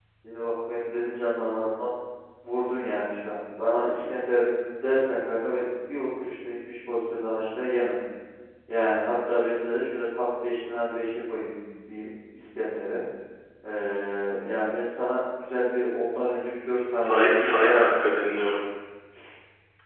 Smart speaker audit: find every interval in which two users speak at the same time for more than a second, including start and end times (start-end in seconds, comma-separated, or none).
17.0-18.4